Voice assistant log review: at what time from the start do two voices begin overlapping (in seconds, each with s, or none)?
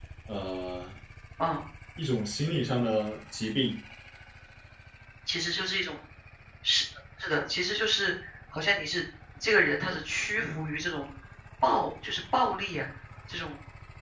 none